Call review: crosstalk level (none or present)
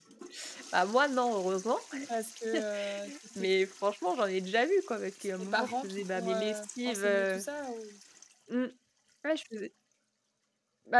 present